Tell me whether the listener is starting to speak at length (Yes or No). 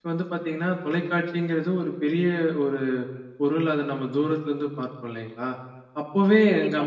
No